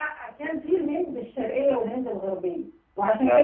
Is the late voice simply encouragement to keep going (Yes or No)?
Yes